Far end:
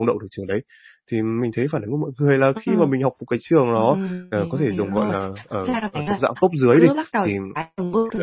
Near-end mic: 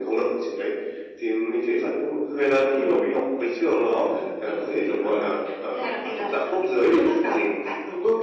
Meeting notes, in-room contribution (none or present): none